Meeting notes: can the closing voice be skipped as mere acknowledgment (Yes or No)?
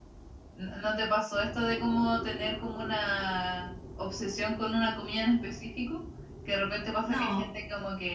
Yes